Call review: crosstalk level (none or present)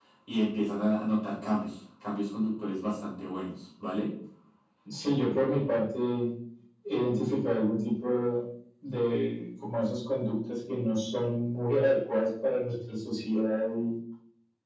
none